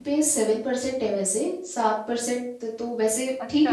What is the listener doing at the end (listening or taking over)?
taking over